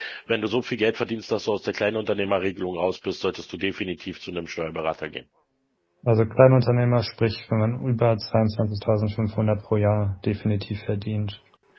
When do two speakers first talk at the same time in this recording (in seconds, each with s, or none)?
none